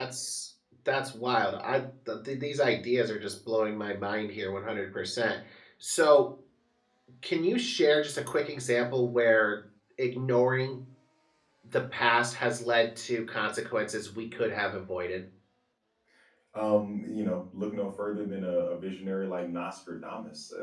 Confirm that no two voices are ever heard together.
Yes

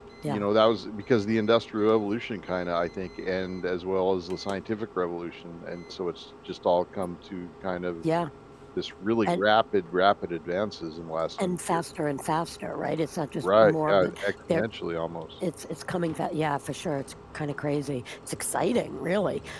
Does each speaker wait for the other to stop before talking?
No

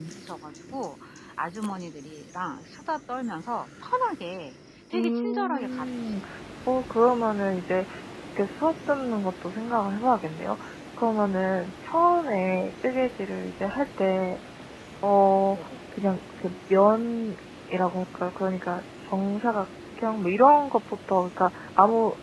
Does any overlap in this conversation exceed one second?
Yes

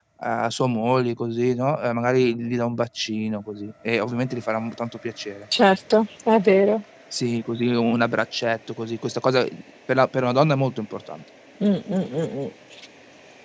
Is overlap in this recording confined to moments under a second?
Yes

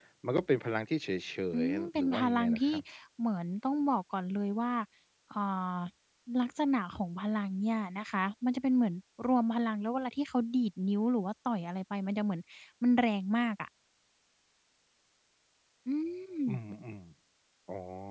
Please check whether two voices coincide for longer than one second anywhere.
Yes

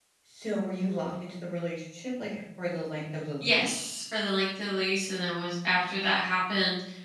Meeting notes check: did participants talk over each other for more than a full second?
No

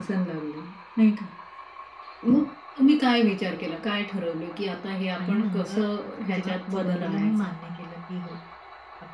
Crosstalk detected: Yes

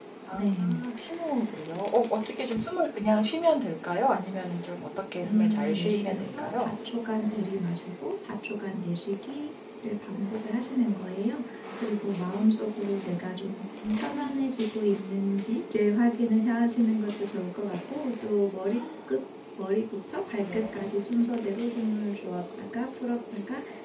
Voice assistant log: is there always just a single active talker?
No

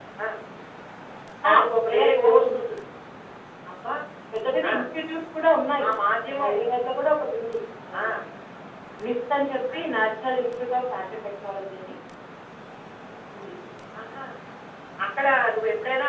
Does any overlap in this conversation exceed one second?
Yes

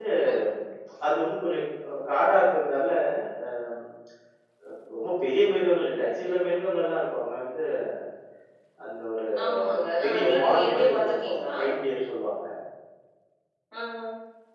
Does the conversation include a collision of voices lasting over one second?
Yes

